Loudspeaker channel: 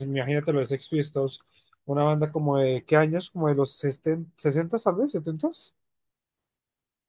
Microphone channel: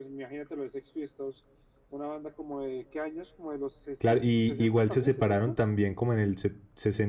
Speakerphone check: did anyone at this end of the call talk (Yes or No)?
Yes